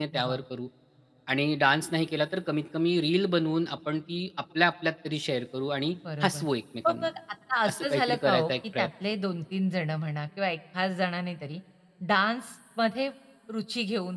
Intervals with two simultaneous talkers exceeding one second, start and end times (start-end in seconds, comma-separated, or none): 7.7-8.9